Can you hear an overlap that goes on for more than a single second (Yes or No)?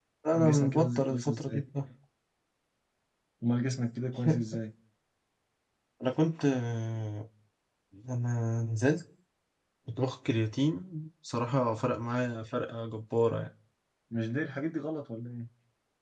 Yes